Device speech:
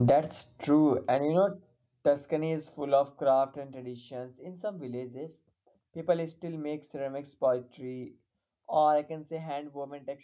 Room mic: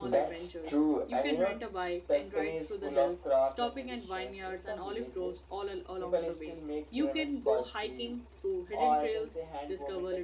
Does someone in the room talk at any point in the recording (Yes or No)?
Yes